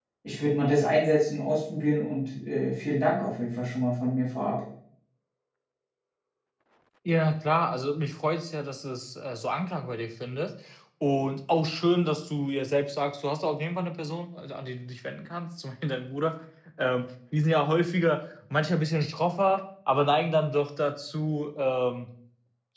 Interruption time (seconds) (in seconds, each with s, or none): none